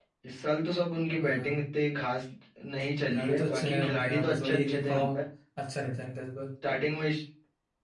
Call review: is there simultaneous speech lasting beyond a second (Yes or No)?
Yes